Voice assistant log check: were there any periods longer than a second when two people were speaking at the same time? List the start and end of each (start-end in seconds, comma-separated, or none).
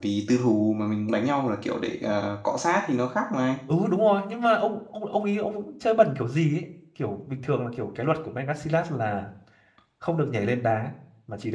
none